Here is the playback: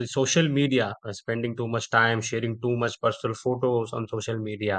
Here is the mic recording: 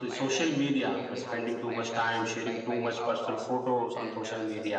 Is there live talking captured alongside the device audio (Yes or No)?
Yes